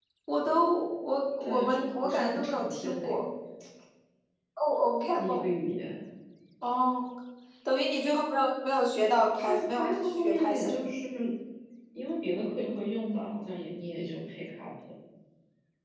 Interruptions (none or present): present